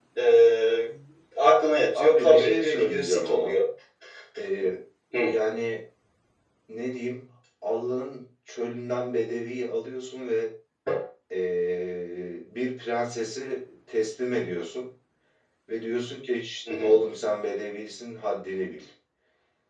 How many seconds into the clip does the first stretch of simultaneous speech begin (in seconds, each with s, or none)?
1.9 s